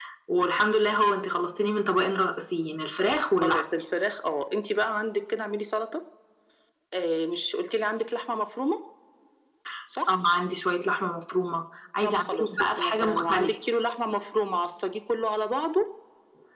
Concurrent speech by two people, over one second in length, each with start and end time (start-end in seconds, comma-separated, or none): 12.0-13.6